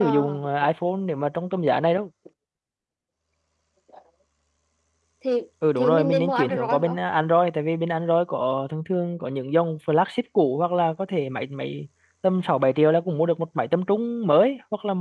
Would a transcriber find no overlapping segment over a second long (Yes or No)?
No